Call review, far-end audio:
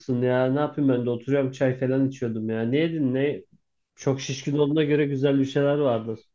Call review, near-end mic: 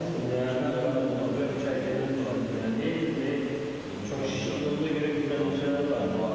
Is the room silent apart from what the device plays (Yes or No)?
No